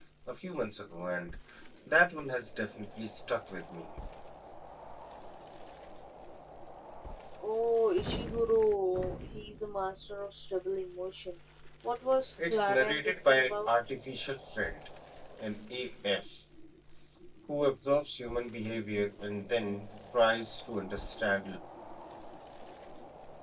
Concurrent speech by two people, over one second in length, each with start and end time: 12.5-13.7

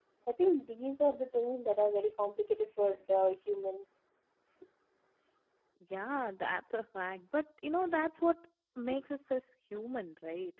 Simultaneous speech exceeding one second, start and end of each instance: none

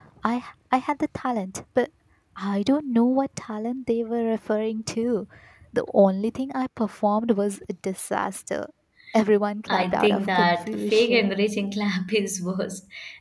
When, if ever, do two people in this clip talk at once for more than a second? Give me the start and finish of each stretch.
9.7-11.3

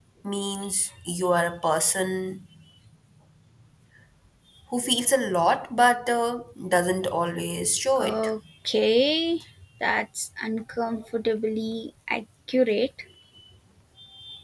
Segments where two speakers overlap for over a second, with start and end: none

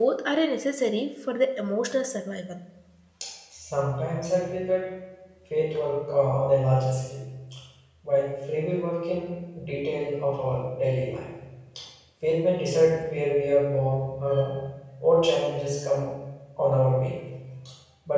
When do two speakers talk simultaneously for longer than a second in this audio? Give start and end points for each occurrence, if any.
none

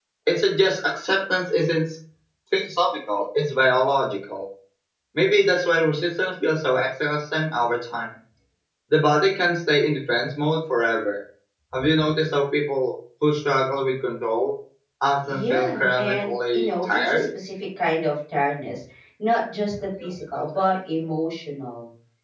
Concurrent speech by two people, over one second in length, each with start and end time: 15.3-17.2

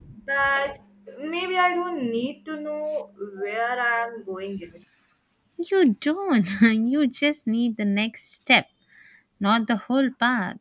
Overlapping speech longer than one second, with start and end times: none

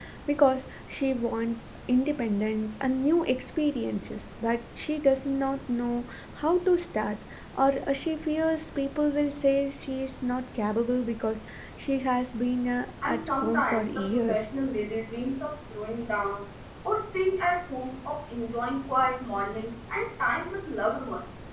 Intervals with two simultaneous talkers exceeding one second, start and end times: 13.0-14.5

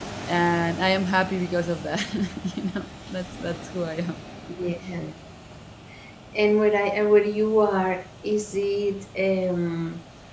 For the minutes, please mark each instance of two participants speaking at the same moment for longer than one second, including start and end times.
none

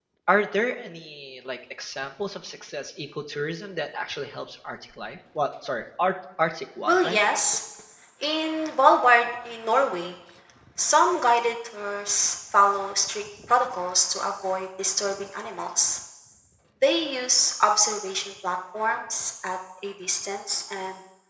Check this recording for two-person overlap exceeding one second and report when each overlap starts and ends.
none

